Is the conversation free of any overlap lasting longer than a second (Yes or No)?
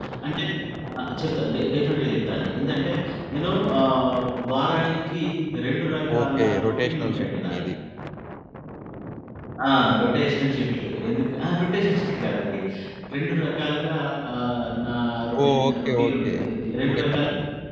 No